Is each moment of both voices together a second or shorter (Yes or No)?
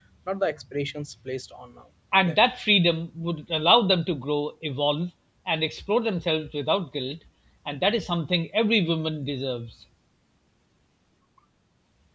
Yes